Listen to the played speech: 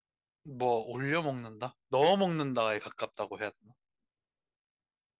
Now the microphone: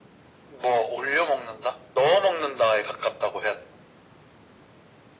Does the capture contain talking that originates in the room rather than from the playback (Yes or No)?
No